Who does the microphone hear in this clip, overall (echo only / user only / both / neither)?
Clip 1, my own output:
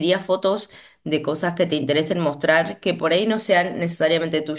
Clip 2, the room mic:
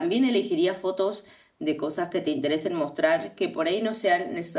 echo only